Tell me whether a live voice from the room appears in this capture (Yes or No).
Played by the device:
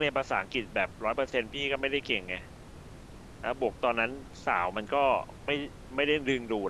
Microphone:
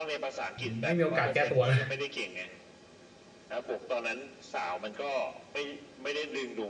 Yes